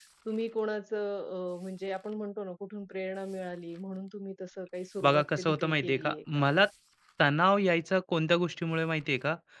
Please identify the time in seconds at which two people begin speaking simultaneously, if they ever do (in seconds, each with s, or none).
5.0 s